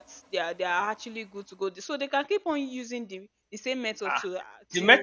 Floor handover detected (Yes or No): Yes